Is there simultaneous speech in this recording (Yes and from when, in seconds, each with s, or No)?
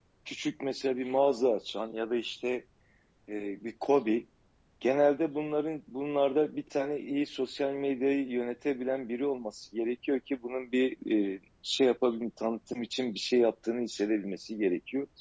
No